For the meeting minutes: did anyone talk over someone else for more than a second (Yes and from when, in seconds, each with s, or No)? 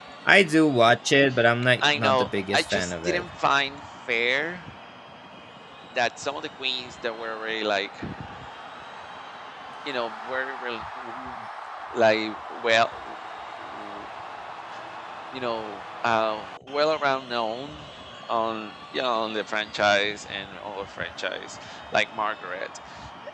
Yes, from 1.8 s